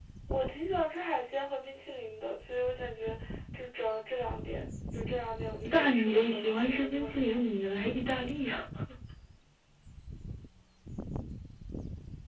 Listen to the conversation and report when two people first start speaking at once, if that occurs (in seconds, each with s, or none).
5.6 s